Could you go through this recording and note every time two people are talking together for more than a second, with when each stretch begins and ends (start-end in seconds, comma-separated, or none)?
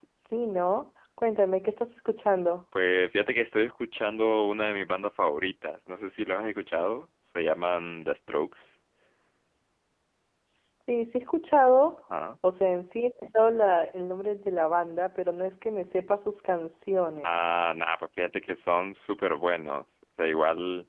none